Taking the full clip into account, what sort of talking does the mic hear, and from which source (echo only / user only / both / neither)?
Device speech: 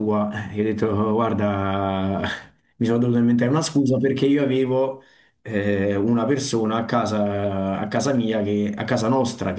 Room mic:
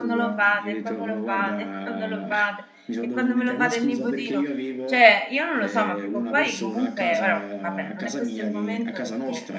both